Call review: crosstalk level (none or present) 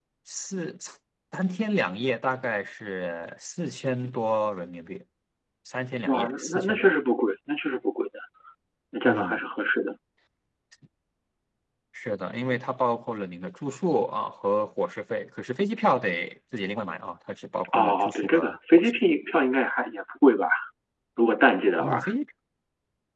present